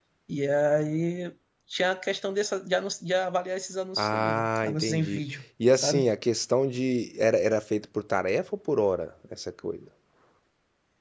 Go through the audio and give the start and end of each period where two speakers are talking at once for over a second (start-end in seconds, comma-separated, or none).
4.0-5.2